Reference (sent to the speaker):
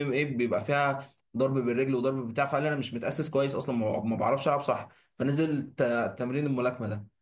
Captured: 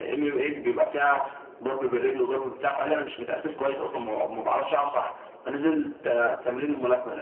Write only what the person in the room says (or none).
none